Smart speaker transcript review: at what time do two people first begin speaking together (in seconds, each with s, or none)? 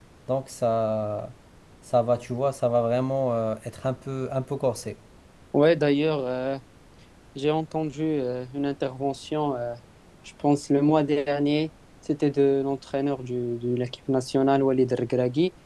none